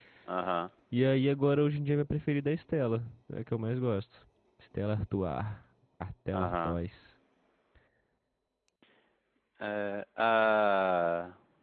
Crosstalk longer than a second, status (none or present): none